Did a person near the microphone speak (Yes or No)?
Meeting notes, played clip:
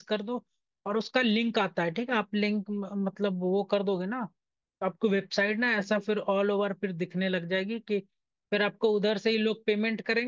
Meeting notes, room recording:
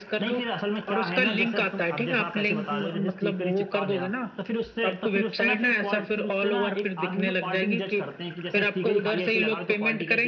Yes